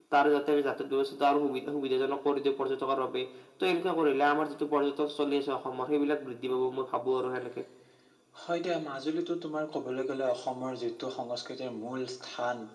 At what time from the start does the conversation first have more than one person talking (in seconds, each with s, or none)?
none